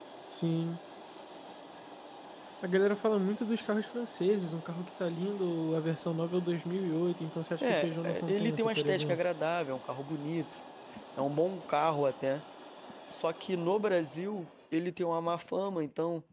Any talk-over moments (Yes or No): Yes